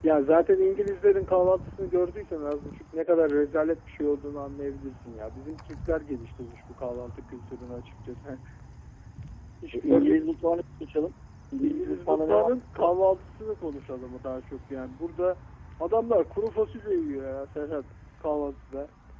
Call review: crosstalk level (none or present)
present